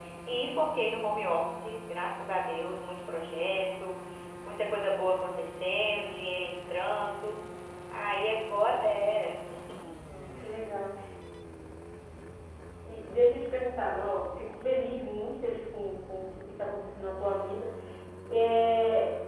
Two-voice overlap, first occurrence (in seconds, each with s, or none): none